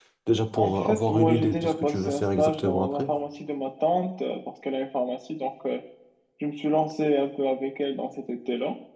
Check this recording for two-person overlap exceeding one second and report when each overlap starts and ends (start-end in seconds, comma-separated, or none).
0.6-3.1